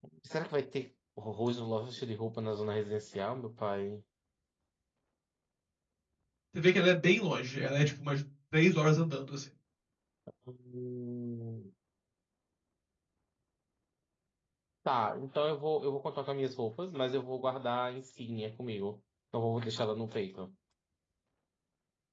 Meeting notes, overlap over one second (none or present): none